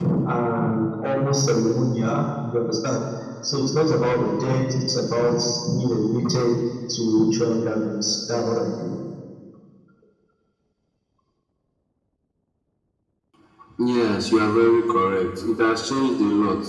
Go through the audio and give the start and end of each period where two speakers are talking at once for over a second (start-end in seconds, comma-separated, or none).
none